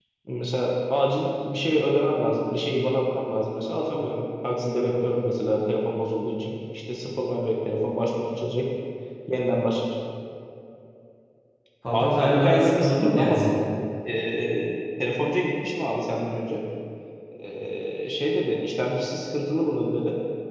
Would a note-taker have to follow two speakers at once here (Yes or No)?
Yes